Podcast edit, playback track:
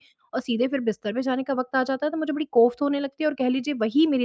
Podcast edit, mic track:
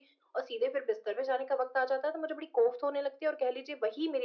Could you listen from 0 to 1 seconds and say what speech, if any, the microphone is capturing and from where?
echo only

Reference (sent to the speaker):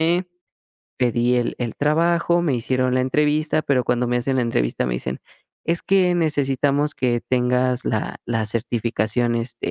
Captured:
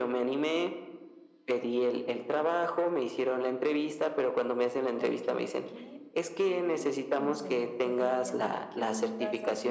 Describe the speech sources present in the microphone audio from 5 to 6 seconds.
both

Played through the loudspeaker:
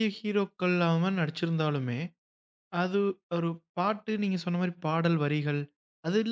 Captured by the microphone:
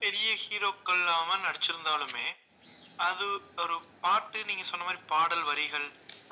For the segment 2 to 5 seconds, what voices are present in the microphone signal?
echo only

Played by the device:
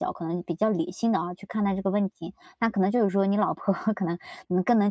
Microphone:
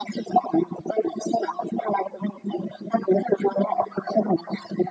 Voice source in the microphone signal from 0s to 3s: echo only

